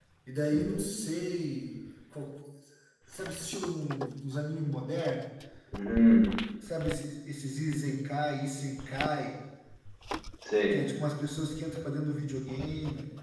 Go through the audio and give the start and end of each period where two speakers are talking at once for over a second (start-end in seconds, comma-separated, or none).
none